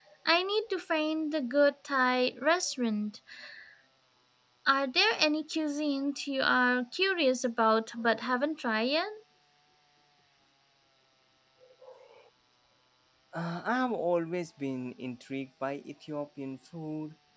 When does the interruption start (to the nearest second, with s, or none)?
none